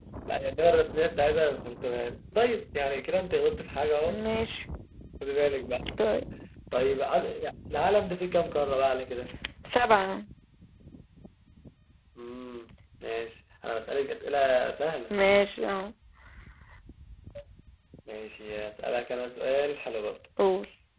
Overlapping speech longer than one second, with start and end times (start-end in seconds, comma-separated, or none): none